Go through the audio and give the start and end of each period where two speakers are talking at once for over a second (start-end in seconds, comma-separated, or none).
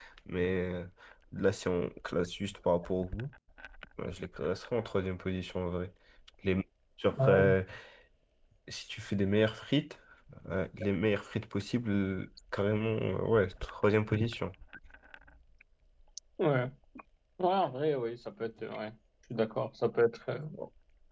none